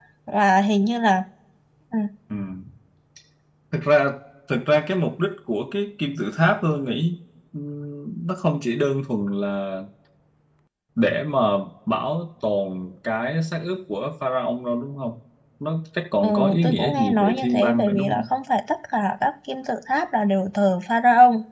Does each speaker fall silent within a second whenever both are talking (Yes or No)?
No